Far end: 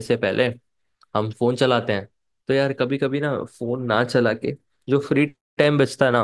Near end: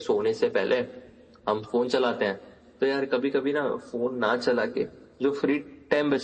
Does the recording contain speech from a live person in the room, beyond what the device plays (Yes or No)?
No